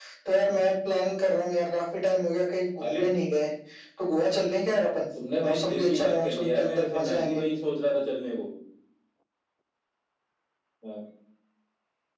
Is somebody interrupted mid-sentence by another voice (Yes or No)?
Yes